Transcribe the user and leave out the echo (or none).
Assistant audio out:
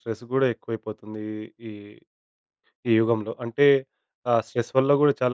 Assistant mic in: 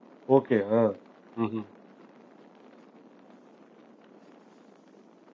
ఓకే. ఆ! హుహు.